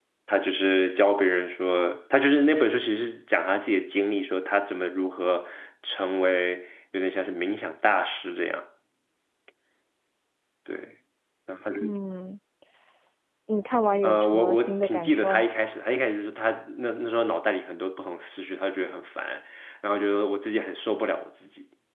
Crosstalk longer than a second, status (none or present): present